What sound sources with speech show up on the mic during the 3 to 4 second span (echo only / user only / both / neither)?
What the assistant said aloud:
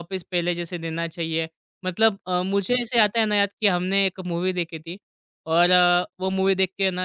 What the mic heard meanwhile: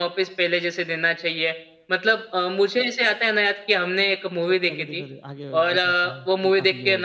echo only